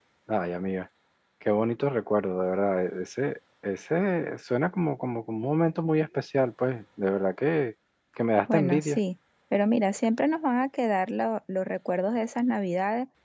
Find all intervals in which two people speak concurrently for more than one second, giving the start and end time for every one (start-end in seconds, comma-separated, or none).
none